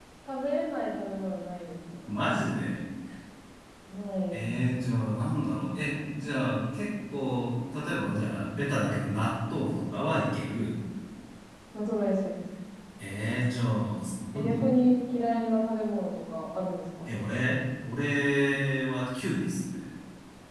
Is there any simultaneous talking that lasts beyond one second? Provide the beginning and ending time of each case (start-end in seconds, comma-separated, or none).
none